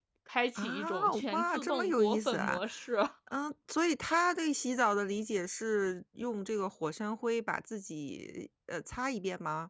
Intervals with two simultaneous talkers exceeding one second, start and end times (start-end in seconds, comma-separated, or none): 0.6-2.6